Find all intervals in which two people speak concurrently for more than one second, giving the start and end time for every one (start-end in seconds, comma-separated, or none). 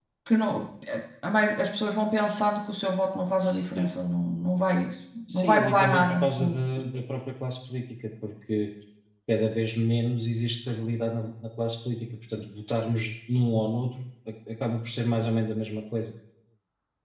5.3-6.5